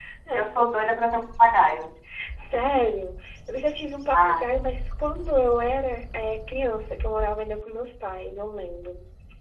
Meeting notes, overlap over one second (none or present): none